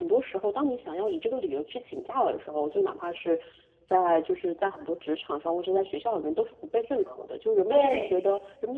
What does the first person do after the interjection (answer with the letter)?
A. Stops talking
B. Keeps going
B